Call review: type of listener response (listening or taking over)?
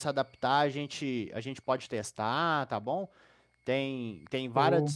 listening